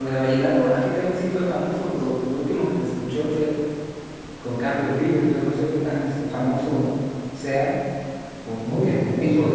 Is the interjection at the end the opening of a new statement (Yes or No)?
Yes